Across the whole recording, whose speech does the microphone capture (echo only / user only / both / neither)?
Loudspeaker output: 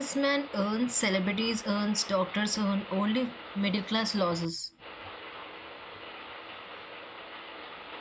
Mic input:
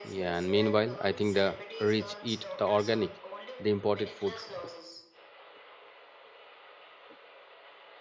both